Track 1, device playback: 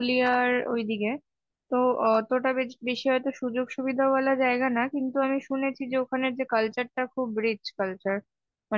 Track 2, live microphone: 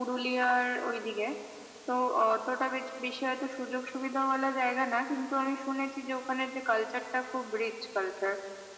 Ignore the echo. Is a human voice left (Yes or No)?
No